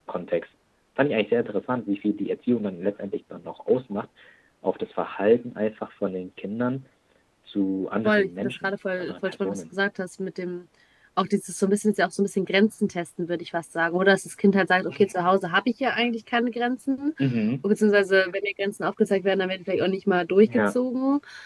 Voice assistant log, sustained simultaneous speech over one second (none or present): present